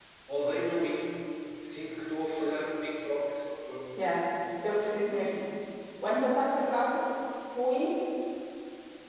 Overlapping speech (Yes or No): No